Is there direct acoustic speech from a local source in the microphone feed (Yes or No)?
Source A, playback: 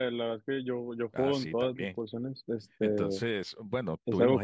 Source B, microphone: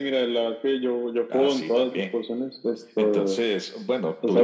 No